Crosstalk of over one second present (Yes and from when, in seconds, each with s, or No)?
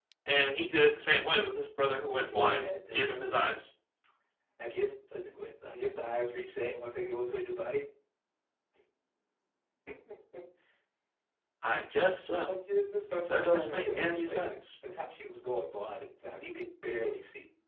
Yes, from 2.1 s